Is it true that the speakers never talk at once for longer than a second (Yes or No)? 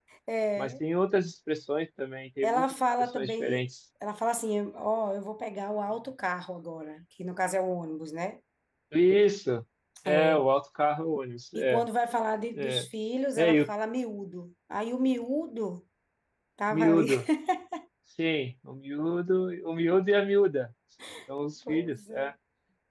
No